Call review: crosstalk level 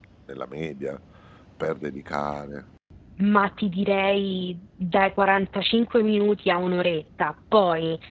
none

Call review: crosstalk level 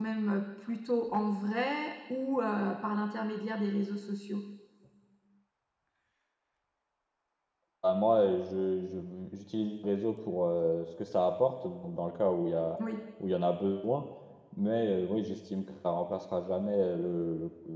none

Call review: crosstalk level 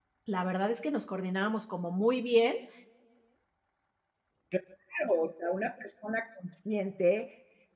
none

